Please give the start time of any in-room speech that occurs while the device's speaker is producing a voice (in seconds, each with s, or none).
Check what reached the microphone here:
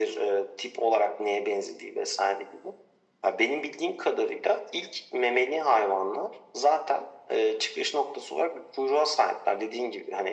none